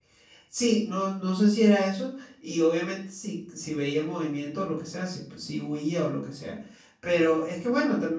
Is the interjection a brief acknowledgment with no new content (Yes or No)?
Yes